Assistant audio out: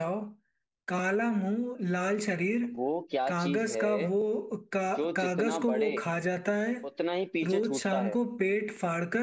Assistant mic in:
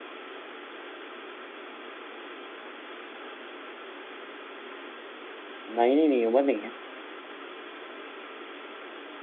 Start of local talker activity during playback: 5.8 s

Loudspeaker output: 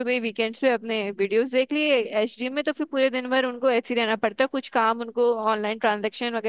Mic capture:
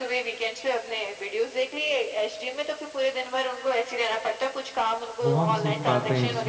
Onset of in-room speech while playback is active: 5.2 s

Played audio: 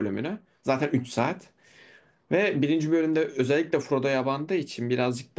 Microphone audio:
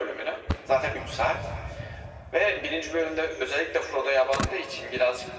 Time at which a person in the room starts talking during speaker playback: none

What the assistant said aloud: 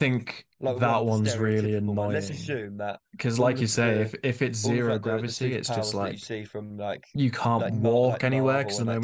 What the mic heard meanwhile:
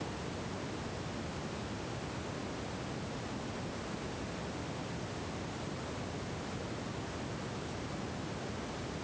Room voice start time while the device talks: none

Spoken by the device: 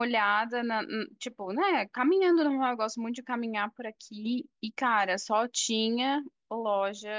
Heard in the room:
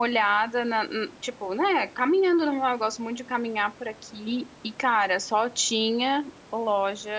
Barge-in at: none

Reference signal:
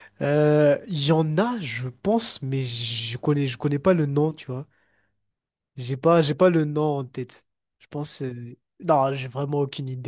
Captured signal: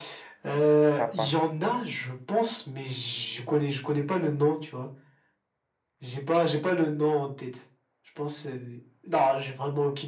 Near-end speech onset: 0.9 s

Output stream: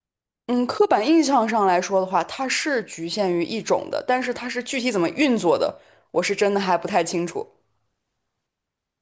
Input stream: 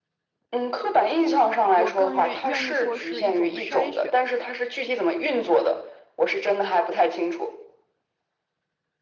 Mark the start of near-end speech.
1.7 s

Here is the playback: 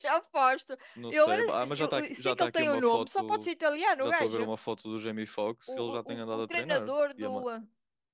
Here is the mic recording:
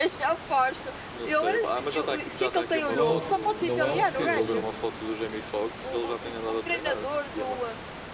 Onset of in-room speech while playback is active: 2.9 s

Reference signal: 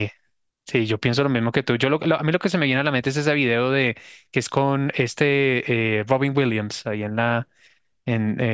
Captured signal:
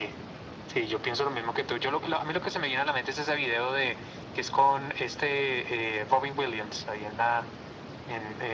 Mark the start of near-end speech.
none

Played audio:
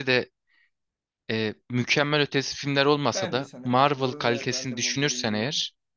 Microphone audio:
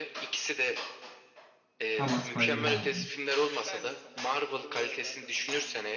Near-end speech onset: 2.0 s

